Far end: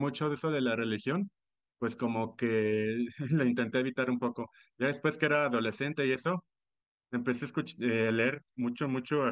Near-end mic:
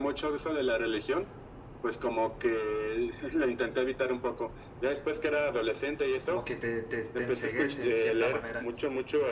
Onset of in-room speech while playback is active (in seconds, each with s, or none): 6.2 s